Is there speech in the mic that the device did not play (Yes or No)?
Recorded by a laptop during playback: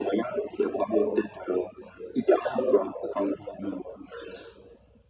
No